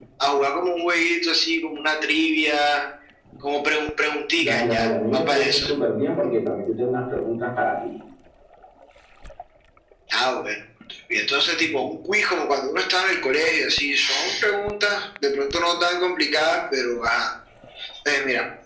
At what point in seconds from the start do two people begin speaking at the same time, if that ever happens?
4.4 s

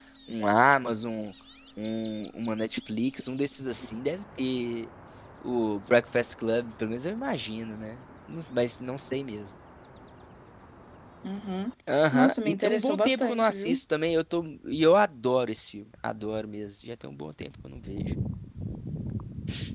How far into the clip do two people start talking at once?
12.1 s

